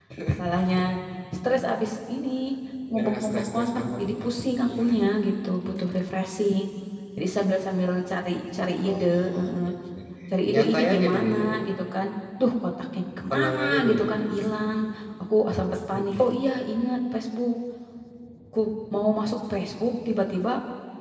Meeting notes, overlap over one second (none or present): present